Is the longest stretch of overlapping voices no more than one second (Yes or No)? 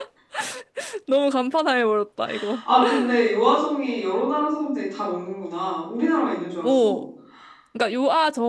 Yes